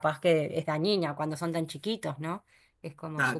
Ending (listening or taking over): taking over